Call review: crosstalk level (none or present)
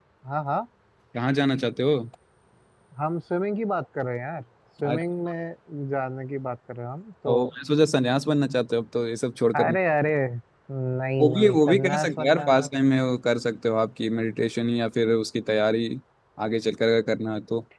present